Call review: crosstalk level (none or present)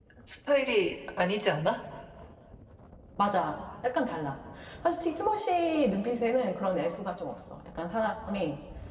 none